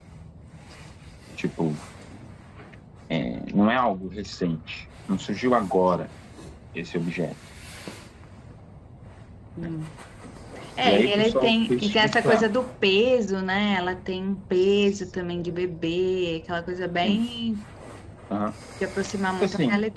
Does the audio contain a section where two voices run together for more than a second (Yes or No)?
Yes